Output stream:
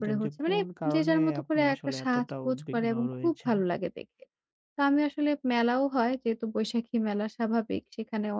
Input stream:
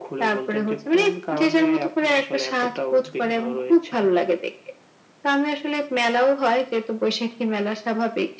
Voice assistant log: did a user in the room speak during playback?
No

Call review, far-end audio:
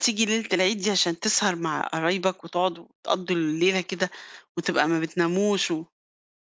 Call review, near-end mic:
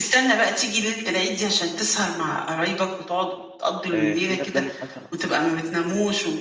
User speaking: Yes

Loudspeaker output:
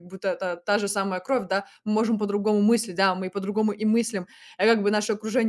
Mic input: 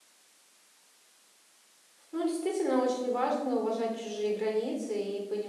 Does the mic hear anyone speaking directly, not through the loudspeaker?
Yes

